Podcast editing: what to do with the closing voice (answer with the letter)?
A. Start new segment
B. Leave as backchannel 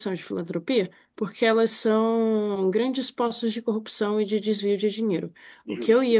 B